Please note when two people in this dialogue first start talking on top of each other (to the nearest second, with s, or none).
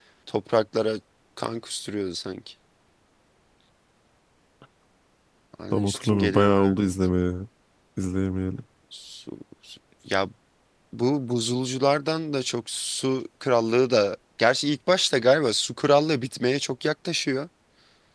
6 s